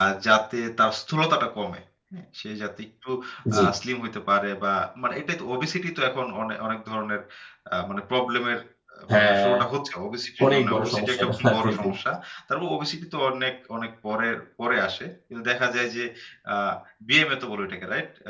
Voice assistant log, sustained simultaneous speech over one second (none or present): present